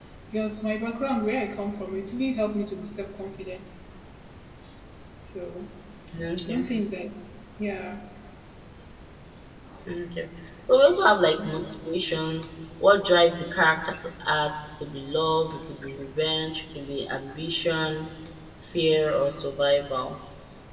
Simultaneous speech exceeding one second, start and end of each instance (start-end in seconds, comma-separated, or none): none